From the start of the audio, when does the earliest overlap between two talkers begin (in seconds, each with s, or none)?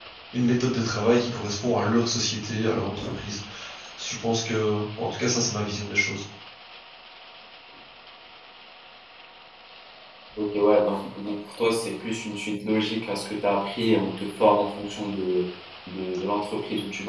none